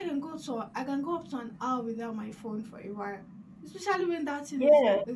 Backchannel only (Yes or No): Yes